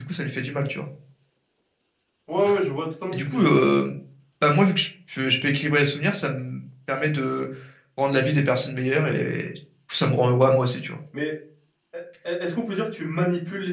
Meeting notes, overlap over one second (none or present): none